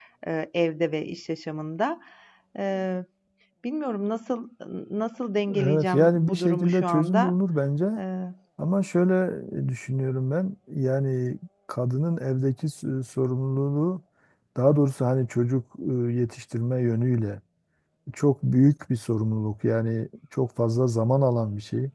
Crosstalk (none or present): present